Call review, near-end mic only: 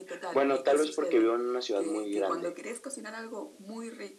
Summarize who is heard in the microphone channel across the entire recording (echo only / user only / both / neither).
echo only